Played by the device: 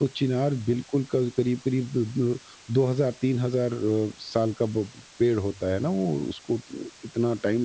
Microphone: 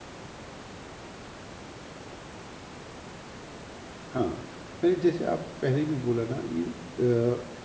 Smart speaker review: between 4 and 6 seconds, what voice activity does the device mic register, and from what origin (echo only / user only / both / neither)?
user only